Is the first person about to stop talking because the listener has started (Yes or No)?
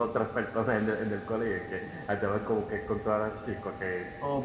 Yes